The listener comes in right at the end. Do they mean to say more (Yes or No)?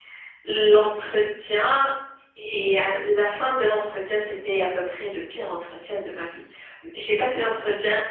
No